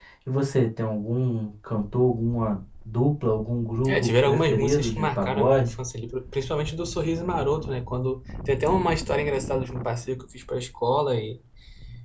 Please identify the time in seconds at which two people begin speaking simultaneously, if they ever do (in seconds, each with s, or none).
3.8 s